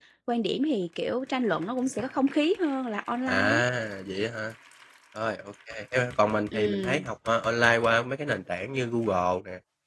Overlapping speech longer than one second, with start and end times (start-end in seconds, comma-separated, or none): none